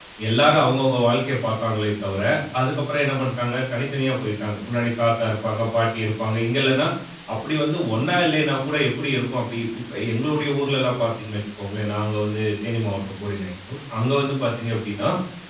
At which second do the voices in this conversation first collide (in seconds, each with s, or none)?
none